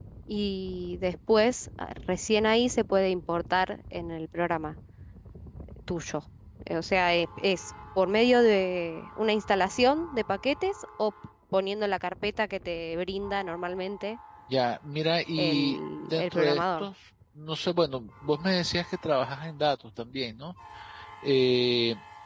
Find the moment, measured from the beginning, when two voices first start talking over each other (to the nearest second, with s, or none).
15 s